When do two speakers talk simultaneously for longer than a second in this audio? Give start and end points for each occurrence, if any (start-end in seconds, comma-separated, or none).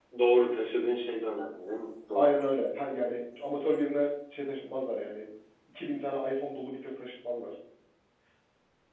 none